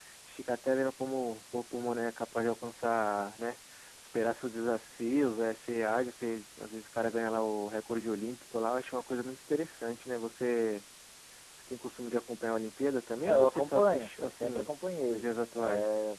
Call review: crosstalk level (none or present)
present